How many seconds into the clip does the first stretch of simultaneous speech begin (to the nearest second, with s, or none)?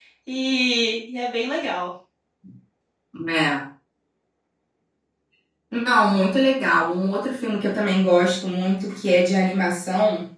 none